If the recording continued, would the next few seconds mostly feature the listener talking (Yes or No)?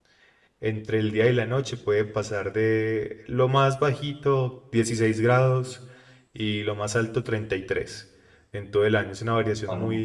No